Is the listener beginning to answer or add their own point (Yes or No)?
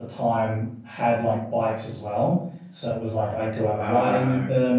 No